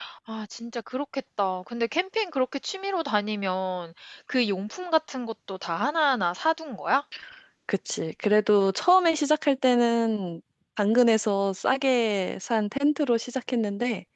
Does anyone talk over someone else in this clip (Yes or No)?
No